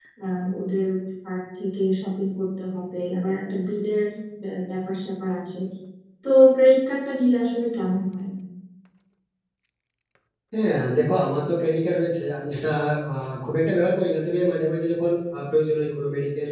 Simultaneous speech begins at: none

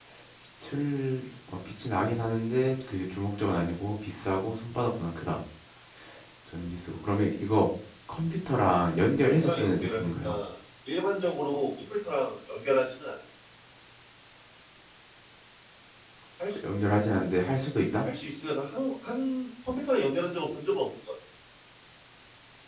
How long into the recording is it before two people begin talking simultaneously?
9 s

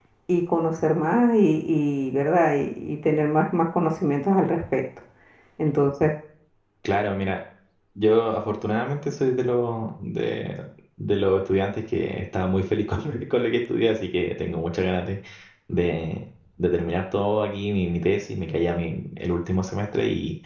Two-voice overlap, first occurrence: none

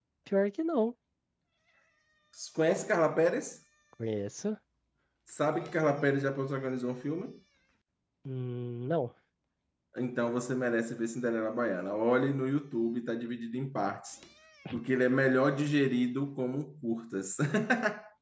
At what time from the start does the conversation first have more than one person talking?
none

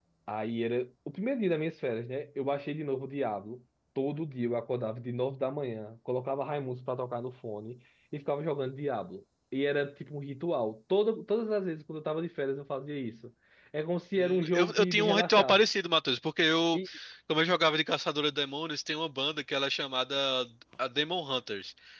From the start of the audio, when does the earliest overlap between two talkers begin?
14 s

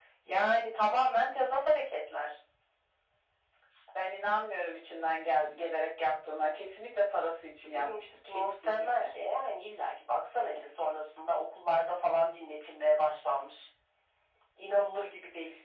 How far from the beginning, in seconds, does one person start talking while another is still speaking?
8 s

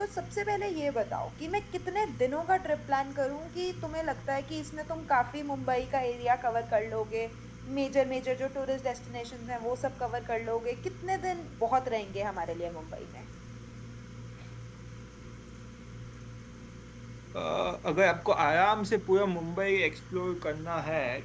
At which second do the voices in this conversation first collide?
none

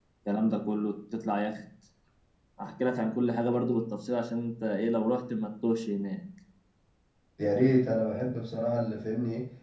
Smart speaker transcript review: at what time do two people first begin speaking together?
none

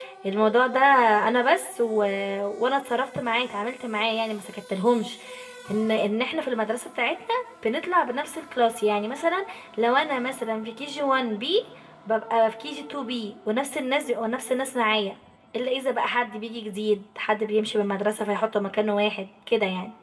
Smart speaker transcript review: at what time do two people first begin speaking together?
none

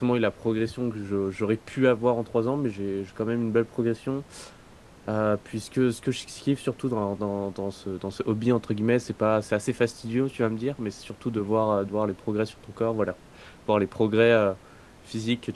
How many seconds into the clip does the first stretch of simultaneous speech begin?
none

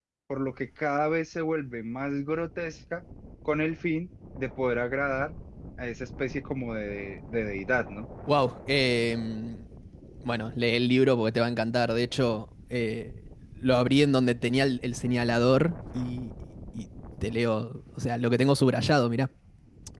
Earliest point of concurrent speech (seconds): none

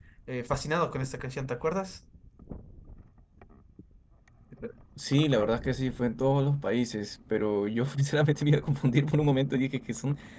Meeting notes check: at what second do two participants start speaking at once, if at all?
none

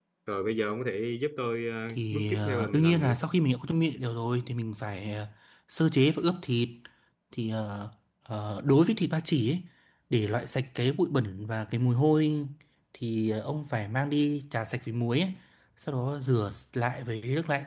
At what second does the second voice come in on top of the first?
2 s

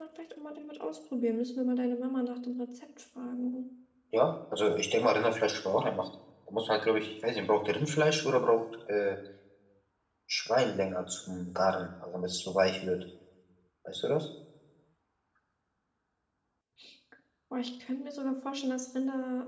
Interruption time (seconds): none

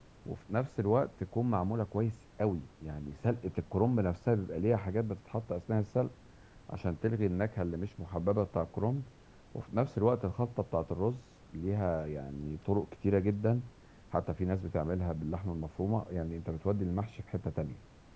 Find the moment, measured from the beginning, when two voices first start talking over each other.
none

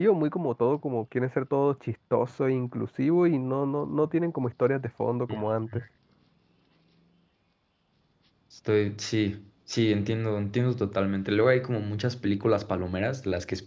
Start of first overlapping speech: none

